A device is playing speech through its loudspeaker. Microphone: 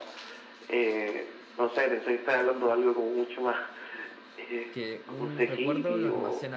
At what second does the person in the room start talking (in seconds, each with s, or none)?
4.7 s